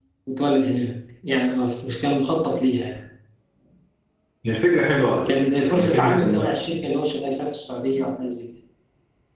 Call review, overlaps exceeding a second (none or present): present